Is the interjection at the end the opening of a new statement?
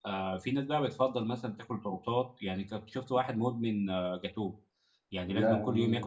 No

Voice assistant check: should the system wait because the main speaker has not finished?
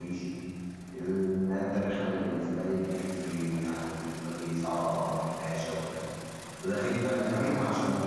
Yes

